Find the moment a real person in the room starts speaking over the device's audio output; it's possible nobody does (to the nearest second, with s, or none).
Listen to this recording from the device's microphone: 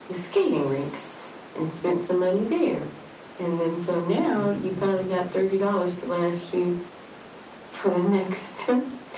4 s